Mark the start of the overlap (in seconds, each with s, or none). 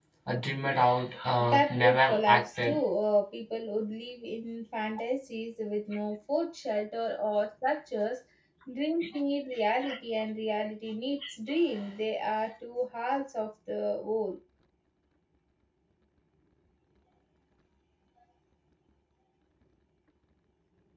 1.4 s